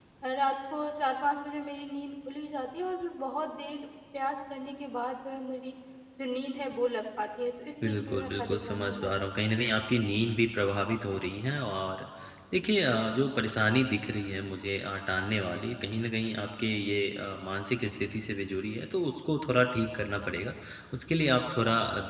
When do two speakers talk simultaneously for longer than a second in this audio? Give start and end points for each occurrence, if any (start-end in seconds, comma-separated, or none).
7.8-9.3